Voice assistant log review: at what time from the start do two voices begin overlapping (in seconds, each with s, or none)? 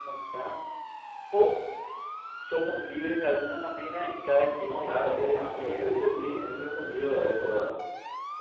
4.6 s